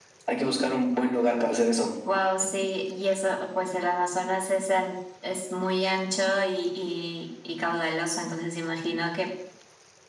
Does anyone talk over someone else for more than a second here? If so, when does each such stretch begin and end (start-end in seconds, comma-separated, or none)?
none